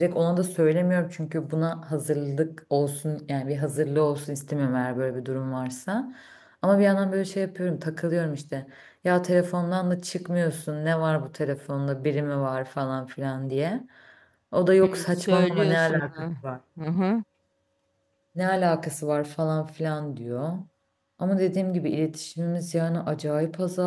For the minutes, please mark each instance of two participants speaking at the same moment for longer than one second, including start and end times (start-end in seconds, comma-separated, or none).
14.8-16.3